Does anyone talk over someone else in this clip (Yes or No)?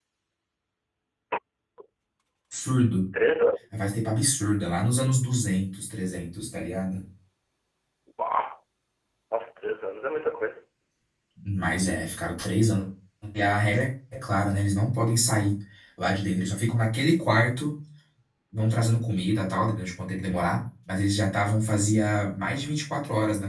No